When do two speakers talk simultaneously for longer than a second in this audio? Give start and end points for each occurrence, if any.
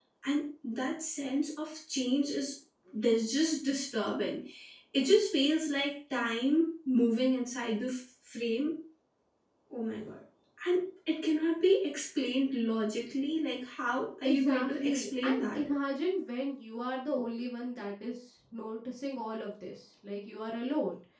14.2-15.7

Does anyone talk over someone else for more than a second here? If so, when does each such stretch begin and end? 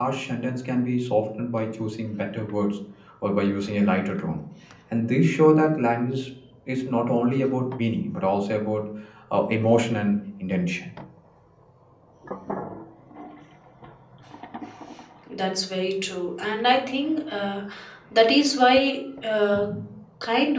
none

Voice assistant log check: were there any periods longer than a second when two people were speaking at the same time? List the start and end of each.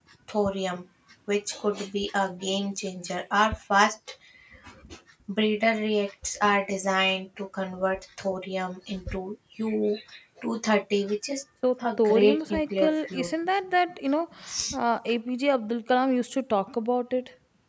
11.8-13.3

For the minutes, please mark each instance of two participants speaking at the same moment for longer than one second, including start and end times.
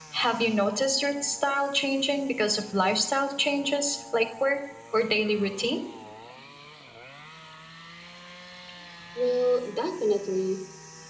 none

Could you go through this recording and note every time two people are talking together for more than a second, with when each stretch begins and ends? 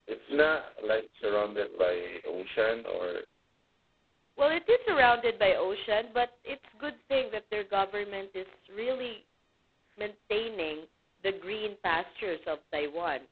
none

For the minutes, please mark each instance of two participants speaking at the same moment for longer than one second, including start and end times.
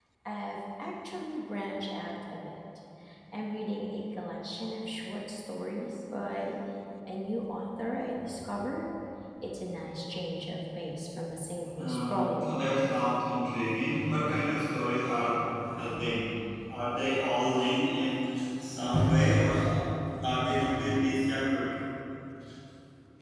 11.8-13.0

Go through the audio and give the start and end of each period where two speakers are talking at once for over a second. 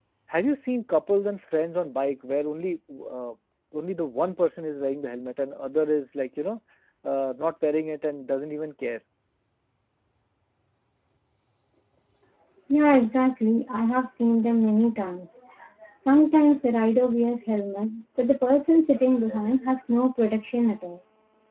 none

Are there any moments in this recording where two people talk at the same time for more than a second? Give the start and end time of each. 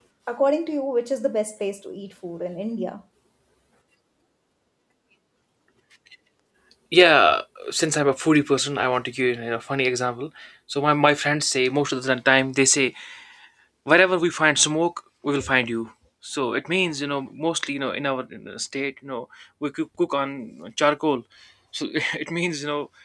none

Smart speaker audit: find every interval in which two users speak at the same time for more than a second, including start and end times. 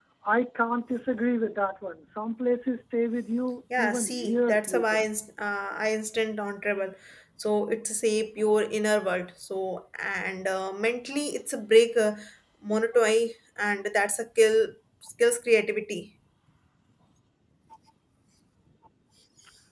3.8-5.1

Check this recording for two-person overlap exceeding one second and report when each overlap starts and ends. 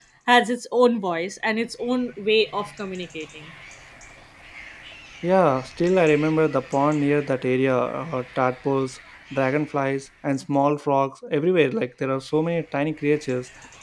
none

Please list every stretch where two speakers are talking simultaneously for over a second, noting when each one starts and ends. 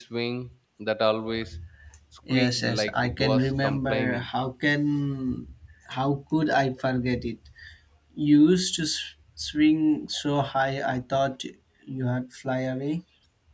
2.3-4.2

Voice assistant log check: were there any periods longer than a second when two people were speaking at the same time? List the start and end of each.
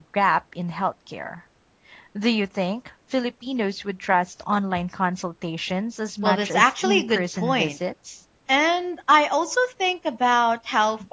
6.2-7.7

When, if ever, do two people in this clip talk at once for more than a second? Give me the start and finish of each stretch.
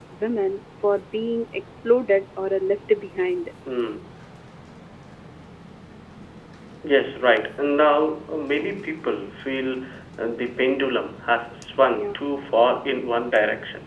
none

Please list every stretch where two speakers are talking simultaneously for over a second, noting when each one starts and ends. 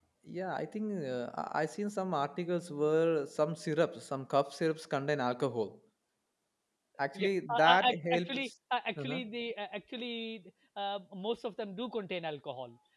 7.2-8.5

